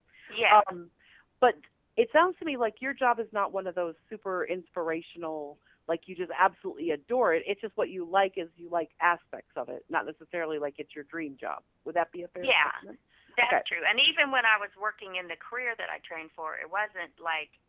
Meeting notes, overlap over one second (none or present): none